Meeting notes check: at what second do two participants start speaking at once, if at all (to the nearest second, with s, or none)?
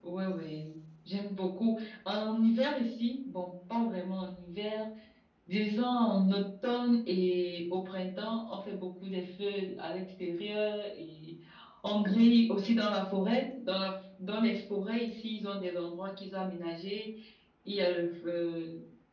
none